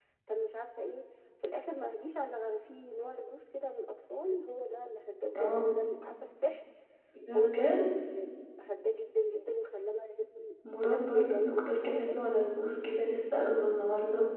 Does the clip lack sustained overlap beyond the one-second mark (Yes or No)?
No